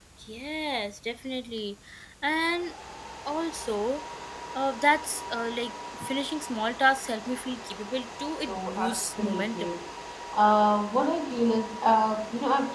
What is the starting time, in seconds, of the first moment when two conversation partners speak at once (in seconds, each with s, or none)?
8.4 s